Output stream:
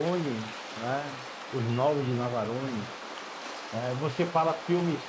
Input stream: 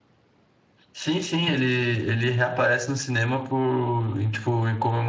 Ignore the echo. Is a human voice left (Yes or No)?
Yes